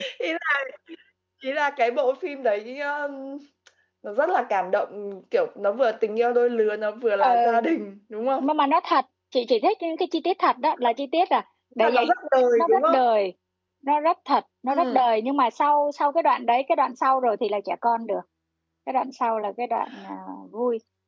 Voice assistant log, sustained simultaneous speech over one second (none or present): none